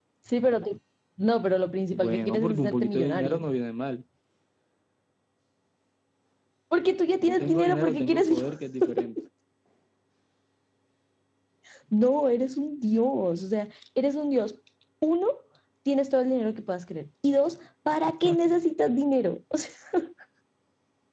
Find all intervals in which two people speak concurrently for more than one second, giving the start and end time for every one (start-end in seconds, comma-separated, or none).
1.9-3.5, 7.2-8.5